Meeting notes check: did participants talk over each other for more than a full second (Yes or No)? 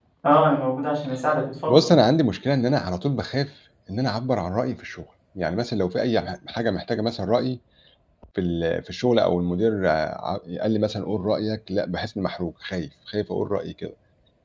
No